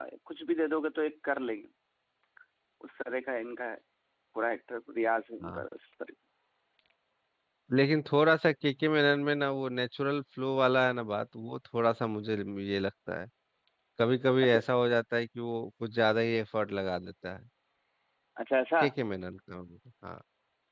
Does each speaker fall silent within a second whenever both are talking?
Yes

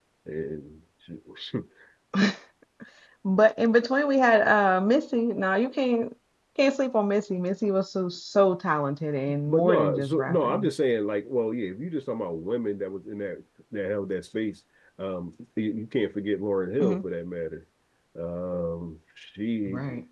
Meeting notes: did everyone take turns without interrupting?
No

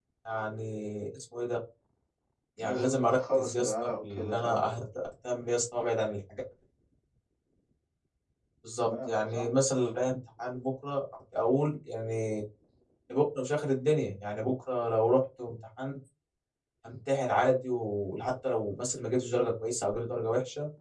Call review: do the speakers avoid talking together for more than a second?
No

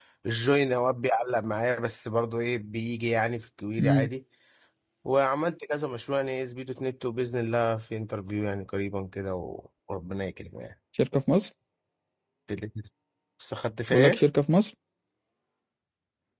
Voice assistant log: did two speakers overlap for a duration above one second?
No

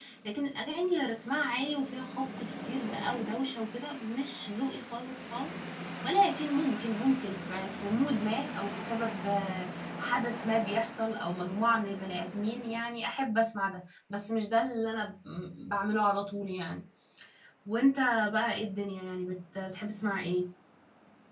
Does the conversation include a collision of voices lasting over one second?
No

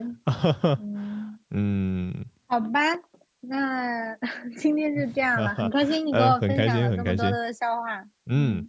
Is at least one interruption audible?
Yes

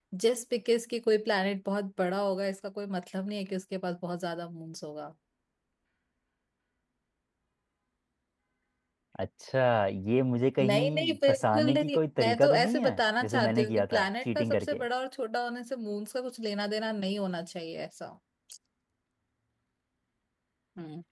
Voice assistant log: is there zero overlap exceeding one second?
No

